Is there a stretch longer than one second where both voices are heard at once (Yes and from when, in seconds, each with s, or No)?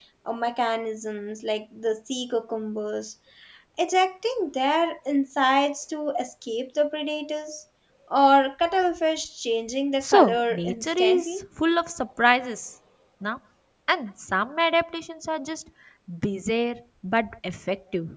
Yes, from 10.0 s